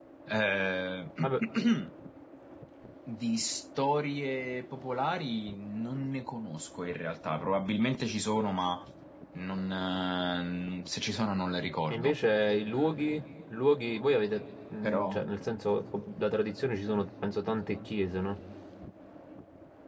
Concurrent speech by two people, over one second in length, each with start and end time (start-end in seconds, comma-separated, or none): none